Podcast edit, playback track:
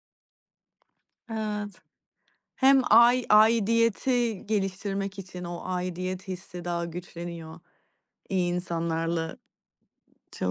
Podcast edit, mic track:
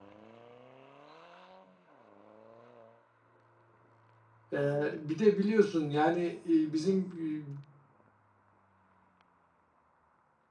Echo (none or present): none